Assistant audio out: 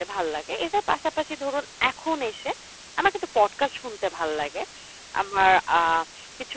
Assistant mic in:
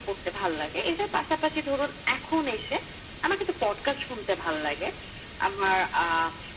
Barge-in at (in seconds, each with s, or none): none